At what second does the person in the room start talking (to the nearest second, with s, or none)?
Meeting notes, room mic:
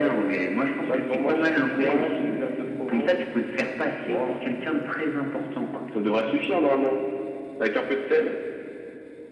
none